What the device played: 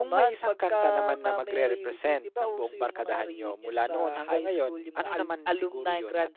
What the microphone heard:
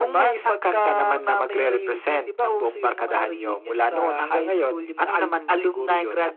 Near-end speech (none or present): none